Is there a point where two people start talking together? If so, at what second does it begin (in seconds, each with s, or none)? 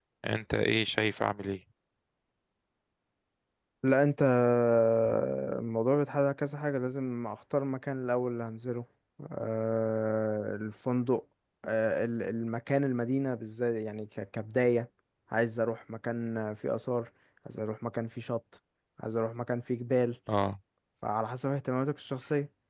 none